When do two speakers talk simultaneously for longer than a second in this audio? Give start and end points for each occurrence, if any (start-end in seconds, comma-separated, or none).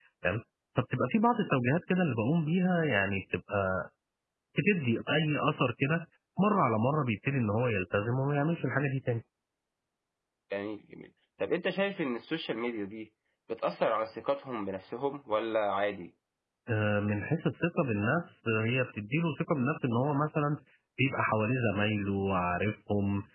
none